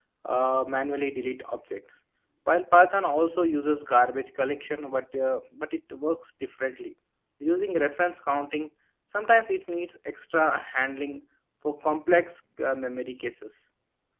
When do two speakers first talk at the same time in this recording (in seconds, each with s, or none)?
none